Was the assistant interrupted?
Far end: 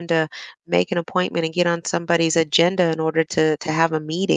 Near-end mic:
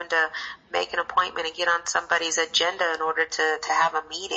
No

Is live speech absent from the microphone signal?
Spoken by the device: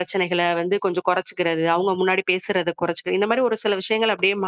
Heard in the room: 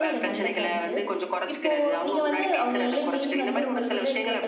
No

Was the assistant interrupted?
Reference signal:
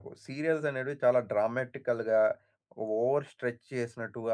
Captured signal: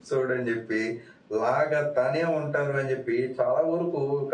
Yes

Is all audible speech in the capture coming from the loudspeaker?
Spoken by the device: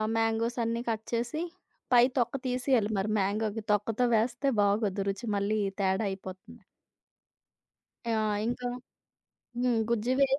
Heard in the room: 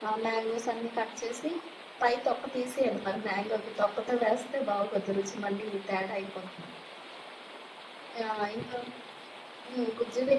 Yes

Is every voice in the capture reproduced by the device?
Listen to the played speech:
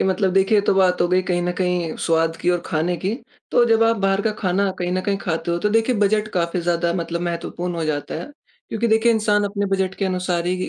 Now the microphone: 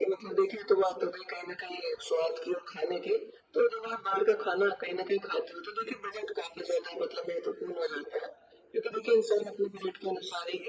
Yes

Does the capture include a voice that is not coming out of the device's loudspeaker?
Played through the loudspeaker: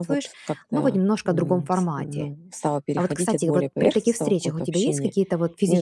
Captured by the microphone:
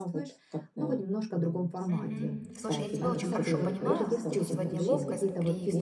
Yes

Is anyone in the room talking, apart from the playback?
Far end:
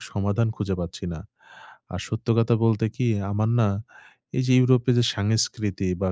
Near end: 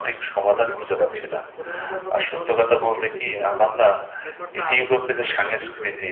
Yes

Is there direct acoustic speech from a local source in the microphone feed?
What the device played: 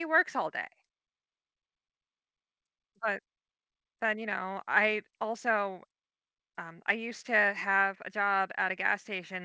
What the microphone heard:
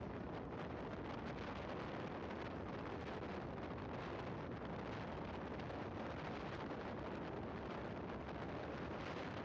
No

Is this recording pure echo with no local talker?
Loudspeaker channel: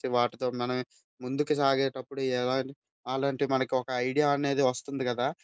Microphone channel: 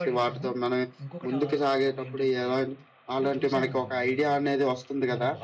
No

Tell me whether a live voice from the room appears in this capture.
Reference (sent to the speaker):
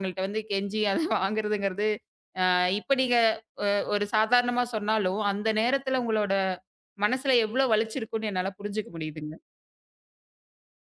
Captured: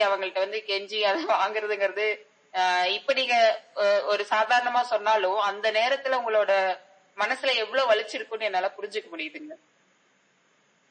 No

